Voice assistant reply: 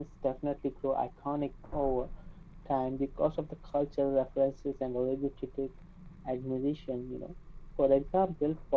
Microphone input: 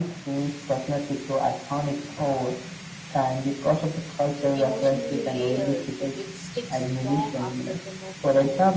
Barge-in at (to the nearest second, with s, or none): 5 s